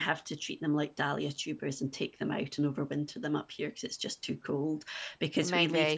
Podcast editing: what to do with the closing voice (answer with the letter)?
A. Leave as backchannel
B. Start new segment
A